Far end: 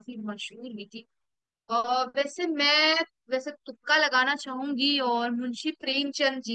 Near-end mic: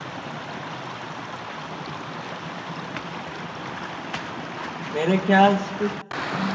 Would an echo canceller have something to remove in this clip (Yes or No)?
No